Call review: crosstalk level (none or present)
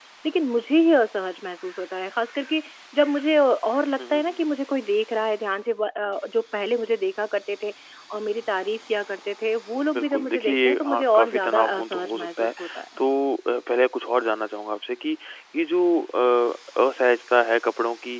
present